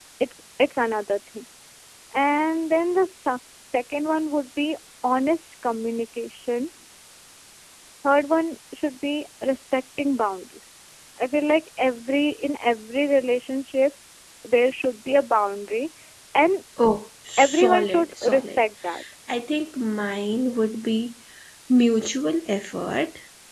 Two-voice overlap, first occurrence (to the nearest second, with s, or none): 17 s